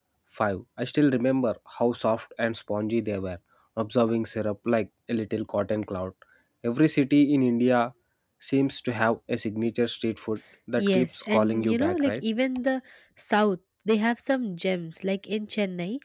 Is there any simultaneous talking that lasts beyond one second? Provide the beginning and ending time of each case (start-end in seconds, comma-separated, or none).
10.8-12.2